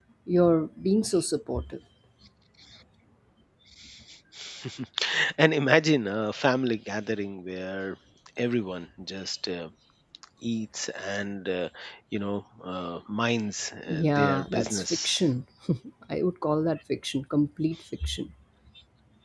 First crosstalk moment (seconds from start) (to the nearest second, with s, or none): 14 s